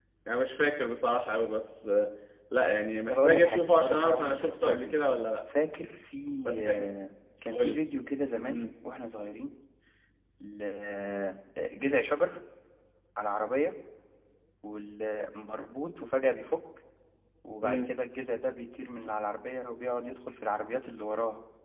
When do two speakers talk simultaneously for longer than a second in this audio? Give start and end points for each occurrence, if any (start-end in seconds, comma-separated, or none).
3.1-4.9